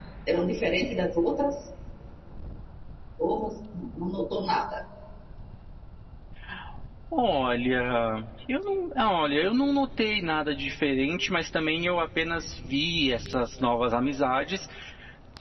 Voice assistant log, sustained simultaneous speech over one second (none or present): none